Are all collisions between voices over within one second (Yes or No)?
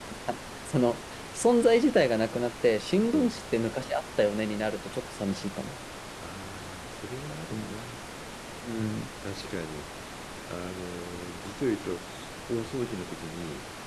Yes